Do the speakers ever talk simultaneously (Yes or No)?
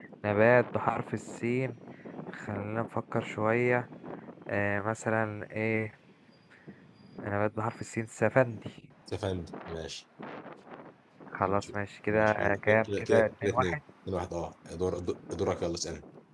Yes